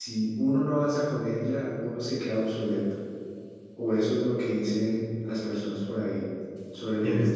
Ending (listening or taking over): taking over